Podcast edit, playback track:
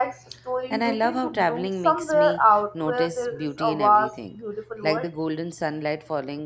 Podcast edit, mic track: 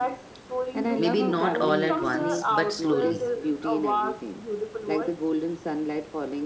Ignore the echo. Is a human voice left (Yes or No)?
Yes